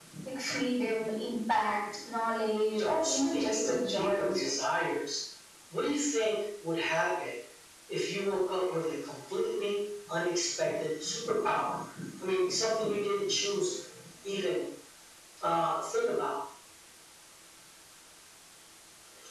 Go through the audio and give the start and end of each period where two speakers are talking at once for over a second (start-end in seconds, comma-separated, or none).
2.7-4.5